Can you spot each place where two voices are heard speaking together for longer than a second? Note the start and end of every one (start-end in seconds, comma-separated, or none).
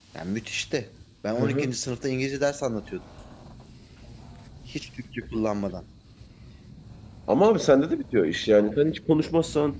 none